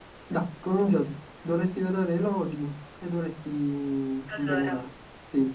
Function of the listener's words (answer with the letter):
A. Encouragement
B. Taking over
A